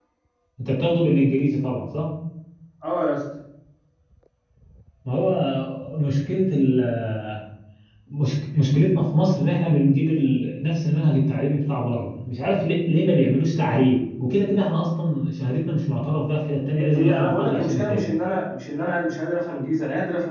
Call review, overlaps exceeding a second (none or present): present